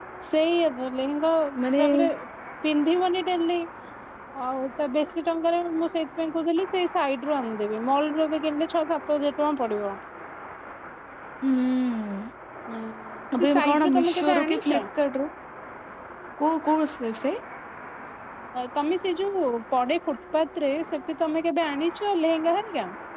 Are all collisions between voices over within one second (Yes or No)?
No